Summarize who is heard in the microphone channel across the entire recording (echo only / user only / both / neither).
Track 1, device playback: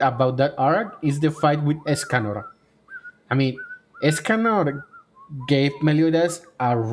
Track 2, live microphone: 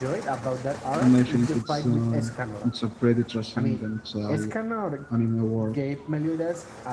both